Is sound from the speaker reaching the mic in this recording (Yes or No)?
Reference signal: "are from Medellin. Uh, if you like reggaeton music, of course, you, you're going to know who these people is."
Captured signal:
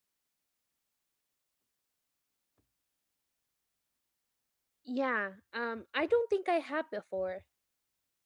No